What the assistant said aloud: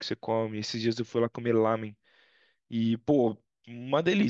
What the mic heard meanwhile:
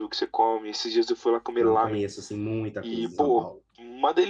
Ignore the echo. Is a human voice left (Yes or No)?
Yes